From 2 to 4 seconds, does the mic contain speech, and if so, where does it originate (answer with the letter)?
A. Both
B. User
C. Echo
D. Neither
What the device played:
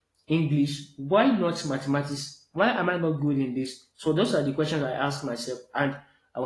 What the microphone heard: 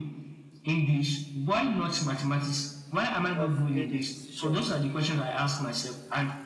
A